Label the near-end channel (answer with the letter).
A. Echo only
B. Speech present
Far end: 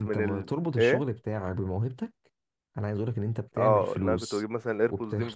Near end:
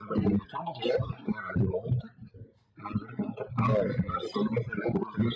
A